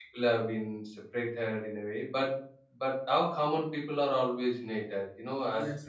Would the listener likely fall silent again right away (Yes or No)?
Yes